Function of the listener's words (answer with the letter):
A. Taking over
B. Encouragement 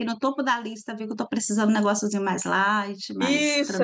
A